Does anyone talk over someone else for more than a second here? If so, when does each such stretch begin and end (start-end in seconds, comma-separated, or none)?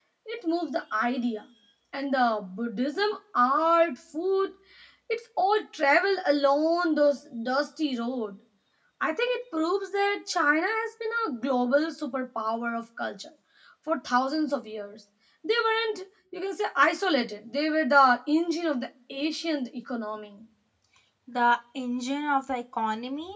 none